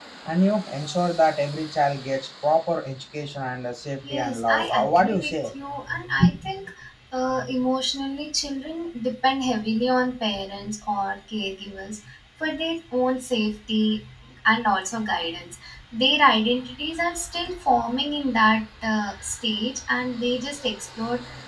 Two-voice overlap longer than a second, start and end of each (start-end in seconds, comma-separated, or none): 4.1-5.4